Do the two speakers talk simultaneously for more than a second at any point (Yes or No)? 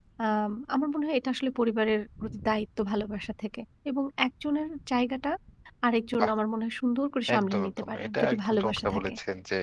Yes